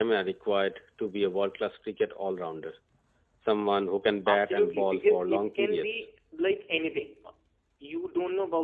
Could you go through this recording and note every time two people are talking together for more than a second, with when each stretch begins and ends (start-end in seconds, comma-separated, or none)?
4.3-5.9